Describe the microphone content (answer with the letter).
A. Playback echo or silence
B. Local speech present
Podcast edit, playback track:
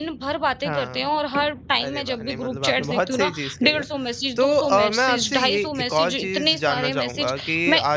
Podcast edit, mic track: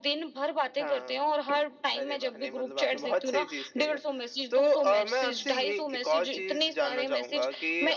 A